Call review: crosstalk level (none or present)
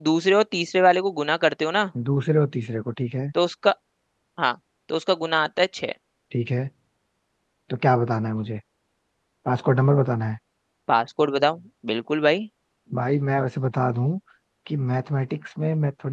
none